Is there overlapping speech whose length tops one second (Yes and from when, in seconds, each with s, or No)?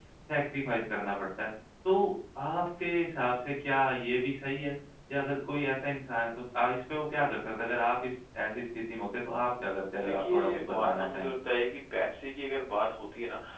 Yes, from 9.9 s